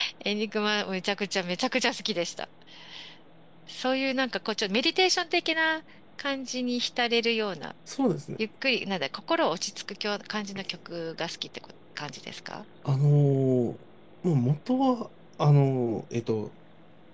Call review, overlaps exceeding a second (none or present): none